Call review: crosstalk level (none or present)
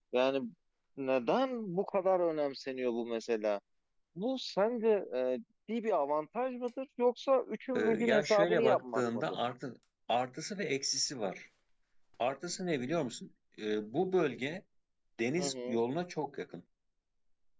present